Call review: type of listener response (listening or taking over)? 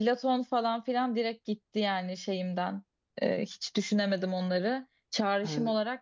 listening